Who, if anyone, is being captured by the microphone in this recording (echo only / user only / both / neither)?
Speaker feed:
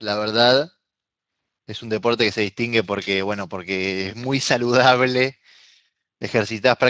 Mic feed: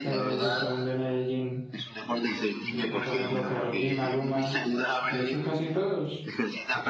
both